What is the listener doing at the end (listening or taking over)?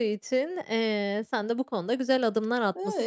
listening